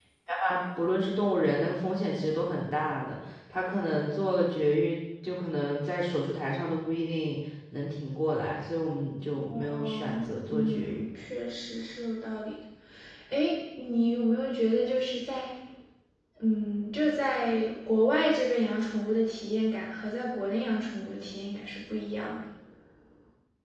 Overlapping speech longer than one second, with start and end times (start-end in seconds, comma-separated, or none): 9.5-11.1